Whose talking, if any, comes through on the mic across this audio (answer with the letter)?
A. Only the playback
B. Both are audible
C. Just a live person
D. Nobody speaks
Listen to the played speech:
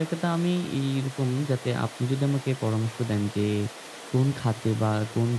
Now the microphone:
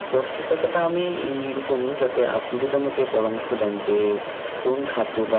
A